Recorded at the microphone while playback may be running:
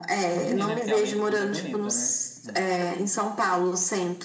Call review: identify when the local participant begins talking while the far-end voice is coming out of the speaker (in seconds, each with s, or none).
0.4 s